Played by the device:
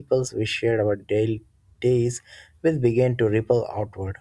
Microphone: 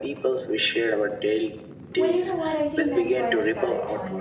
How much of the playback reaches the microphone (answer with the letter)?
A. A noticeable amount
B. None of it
A